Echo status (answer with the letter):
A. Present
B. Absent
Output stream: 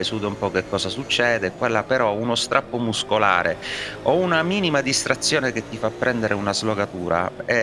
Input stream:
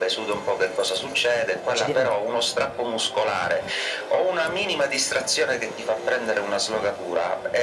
A